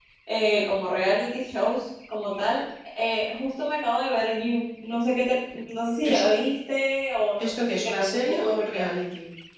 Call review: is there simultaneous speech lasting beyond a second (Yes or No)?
Yes